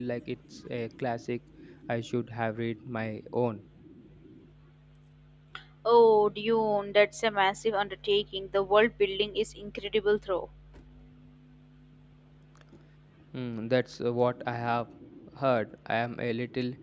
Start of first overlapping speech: none

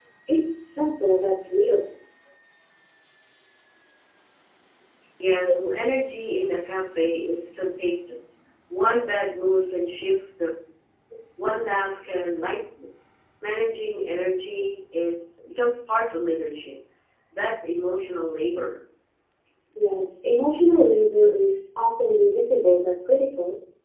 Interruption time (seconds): none

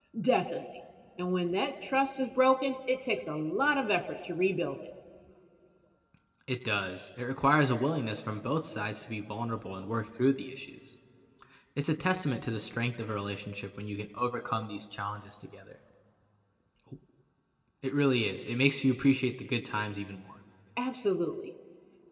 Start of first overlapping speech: none

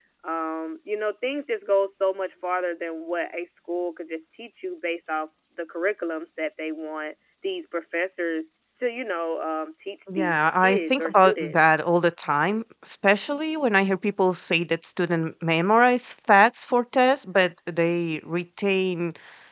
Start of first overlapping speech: 10.1 s

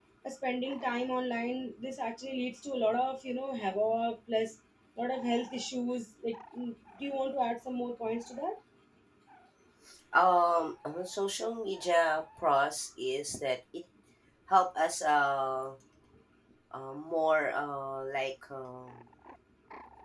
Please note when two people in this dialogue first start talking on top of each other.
none

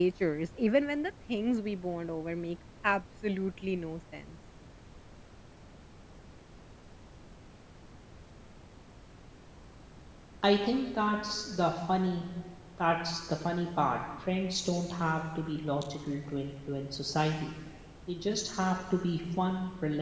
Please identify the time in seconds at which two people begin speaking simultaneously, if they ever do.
none

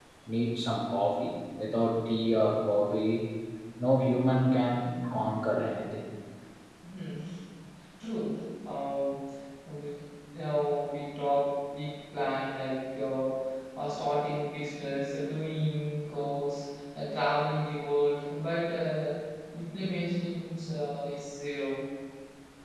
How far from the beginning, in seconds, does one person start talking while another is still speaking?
none

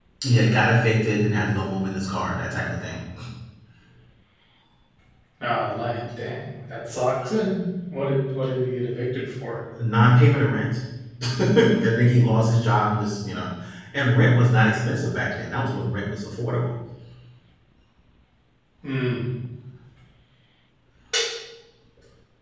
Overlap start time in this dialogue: none

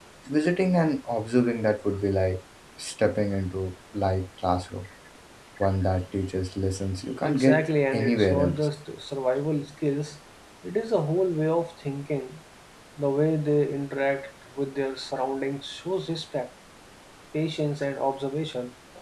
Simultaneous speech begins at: 7.2 s

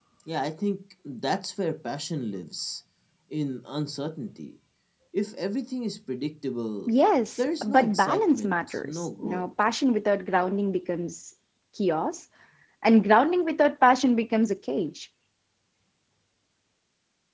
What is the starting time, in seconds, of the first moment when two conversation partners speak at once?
7.6 s

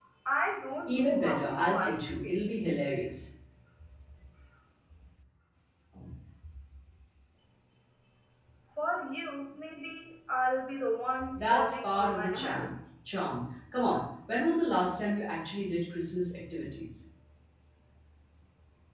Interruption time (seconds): 0.9 s

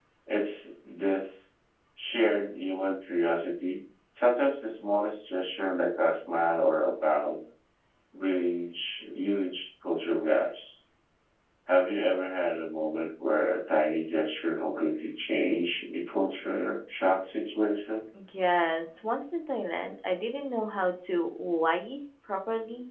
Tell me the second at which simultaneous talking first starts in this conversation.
none

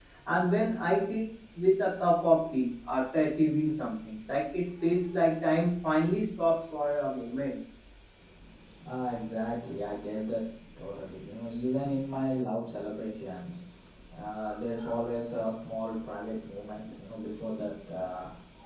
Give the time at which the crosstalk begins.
none

